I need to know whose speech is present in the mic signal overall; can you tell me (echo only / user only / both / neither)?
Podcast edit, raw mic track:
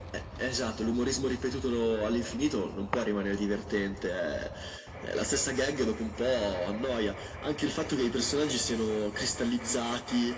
echo only